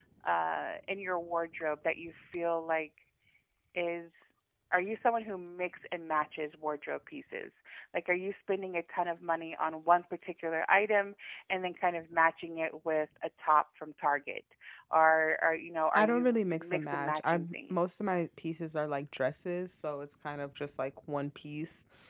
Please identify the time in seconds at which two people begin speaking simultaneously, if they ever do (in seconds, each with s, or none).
15.9 s